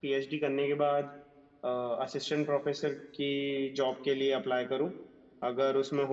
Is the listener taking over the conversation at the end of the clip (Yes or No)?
No